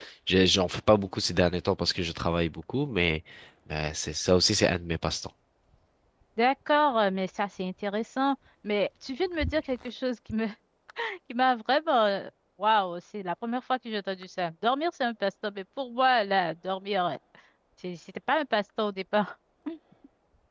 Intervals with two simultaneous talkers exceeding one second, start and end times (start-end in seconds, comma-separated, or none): none